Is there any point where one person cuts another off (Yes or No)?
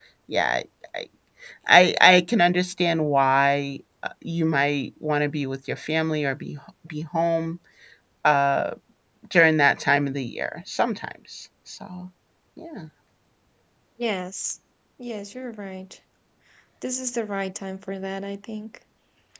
No